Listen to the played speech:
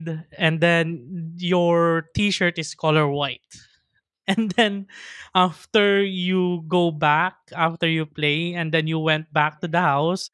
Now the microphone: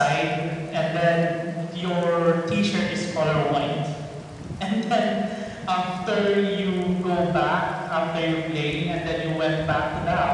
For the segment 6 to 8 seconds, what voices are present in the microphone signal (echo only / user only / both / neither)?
echo only